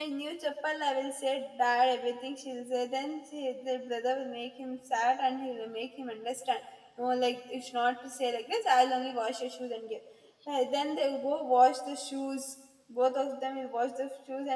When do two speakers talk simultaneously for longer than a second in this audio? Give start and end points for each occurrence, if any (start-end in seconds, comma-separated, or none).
none